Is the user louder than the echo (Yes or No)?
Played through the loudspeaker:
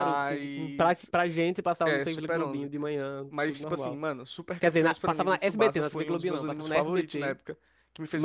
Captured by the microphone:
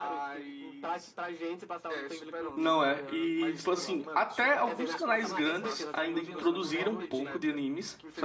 Yes